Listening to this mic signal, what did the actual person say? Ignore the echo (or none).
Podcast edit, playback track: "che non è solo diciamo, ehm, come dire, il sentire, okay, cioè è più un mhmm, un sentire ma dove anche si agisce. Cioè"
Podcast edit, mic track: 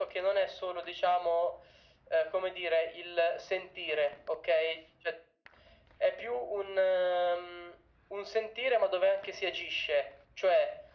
none